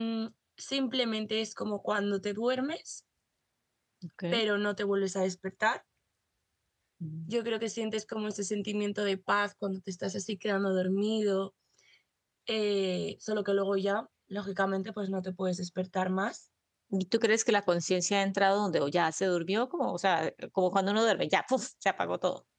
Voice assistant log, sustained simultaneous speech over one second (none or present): none